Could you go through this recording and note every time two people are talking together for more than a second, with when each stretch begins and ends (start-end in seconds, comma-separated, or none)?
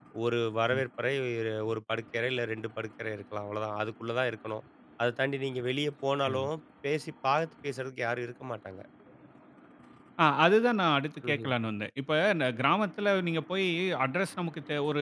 none